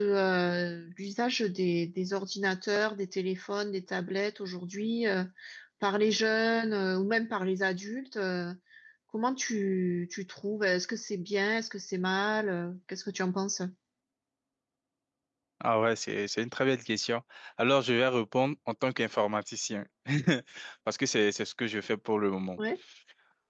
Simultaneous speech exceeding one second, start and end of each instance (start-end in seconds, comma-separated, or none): none